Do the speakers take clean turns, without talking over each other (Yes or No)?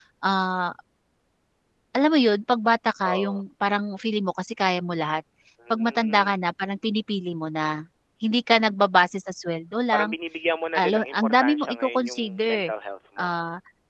No